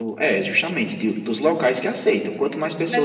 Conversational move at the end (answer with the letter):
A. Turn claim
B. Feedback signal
A